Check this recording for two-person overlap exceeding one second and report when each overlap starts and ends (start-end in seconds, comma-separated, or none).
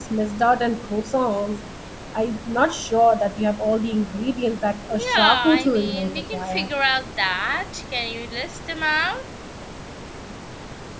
4.9-6.7